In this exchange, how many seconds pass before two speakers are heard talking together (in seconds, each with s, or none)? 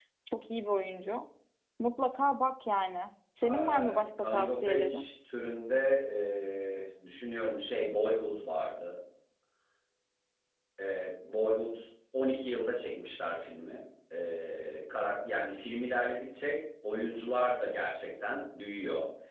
3.4 s